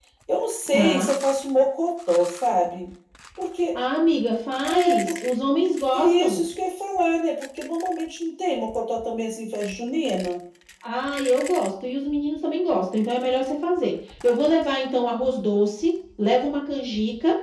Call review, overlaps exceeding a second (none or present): none